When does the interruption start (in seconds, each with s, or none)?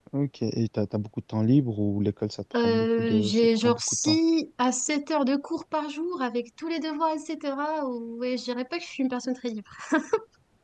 2.5 s